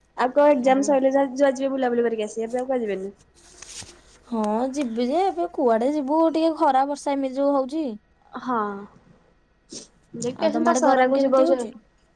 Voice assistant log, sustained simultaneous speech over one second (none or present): present